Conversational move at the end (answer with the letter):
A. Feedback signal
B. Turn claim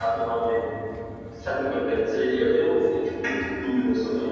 B